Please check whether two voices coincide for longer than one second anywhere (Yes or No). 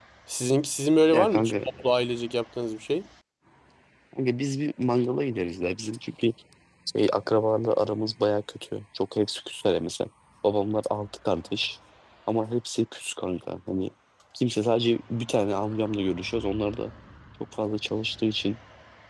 No